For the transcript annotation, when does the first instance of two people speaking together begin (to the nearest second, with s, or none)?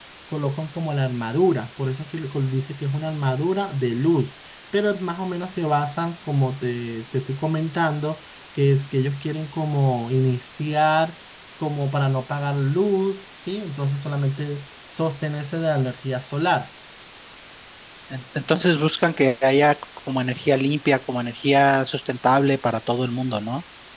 none